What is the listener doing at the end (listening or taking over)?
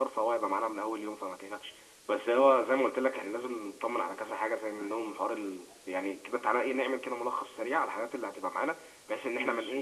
listening